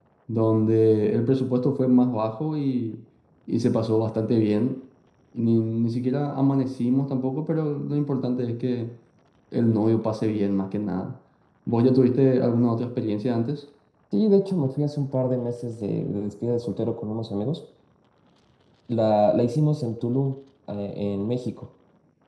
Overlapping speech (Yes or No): No